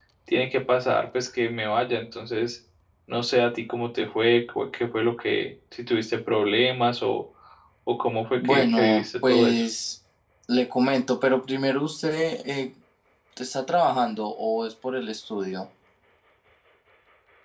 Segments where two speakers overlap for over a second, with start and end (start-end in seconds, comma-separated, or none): 8.4-9.6